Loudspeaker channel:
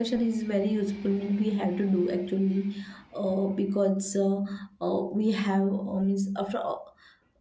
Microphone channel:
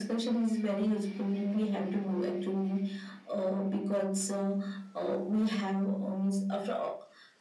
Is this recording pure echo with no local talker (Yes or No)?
Yes